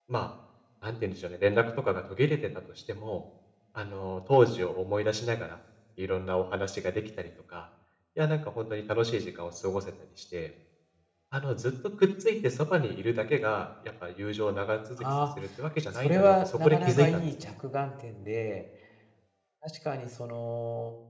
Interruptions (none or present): present